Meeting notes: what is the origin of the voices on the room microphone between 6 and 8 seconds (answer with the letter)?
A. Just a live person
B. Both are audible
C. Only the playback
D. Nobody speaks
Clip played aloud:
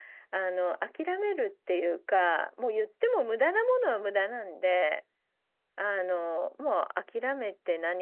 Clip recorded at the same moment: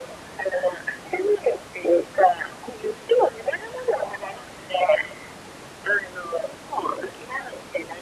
C